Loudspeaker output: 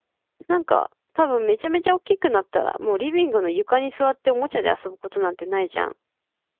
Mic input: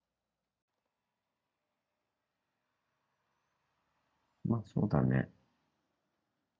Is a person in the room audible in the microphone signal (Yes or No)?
Yes